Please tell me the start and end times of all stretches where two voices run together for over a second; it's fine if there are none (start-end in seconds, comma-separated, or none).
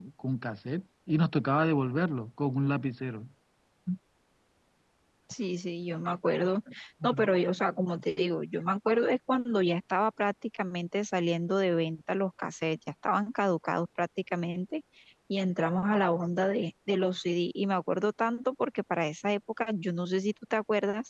none